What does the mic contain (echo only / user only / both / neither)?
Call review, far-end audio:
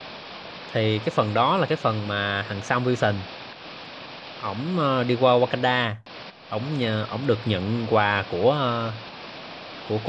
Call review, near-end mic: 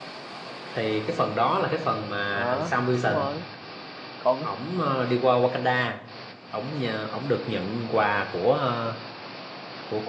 both